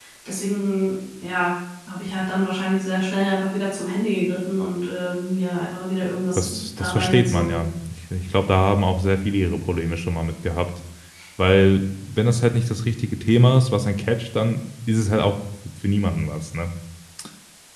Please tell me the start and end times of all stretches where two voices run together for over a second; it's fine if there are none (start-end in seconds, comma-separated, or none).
6.4-7.6